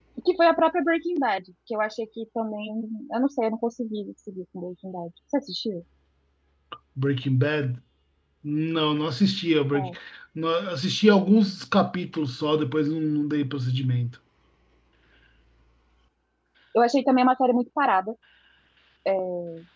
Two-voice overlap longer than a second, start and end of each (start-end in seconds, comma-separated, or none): none